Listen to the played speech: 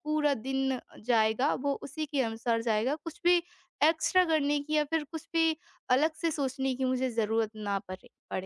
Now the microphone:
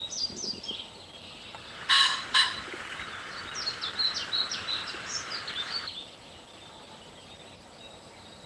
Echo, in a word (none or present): none